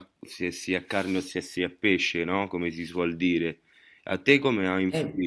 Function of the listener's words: listening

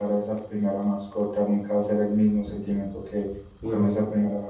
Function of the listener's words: listening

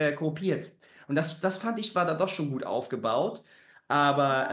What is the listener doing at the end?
taking over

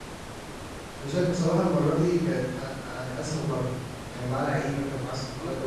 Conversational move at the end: taking over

